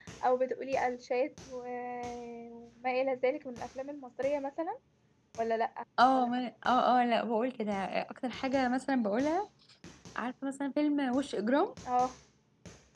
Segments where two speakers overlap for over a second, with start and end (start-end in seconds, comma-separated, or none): none